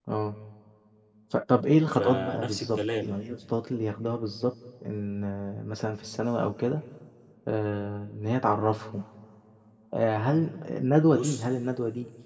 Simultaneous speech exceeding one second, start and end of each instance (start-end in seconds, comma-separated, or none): 1.9-3.1